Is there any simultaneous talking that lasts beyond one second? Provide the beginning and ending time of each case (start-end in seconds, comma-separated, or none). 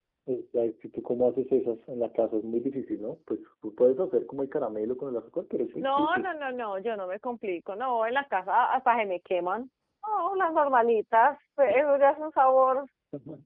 none